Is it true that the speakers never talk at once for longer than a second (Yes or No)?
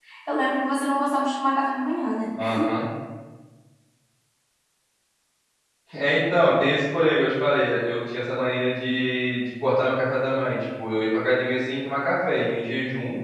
Yes